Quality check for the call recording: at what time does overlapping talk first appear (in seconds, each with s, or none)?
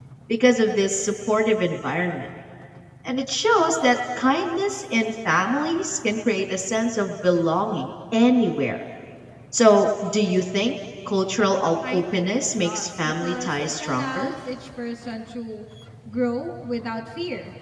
11.8 s